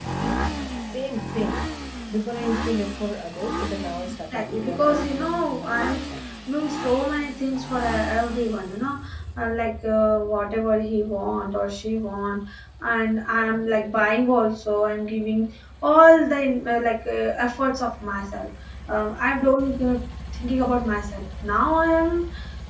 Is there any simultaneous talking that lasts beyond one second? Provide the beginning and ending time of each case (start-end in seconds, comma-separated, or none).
4.3-6.0